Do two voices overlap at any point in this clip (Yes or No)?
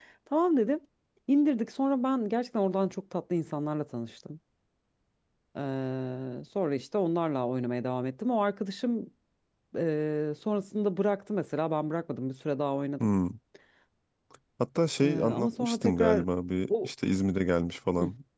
Yes